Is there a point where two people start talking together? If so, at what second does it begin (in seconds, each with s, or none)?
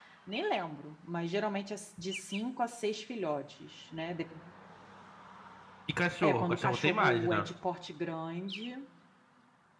6.2 s